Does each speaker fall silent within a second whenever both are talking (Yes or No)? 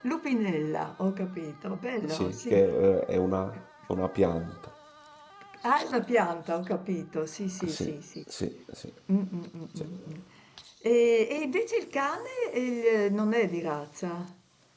Yes